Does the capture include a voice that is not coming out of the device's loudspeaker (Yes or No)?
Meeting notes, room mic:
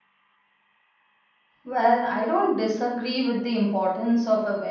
Yes